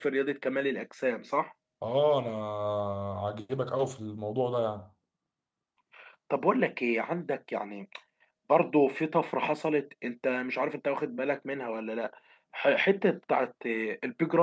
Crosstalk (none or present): none